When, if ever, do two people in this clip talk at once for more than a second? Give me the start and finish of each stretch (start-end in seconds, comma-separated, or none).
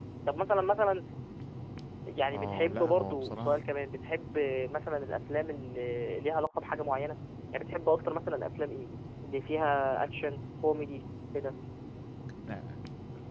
2.3-3.6